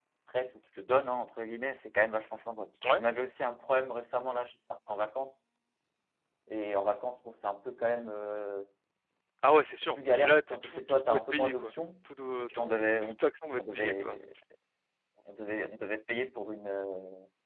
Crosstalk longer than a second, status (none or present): present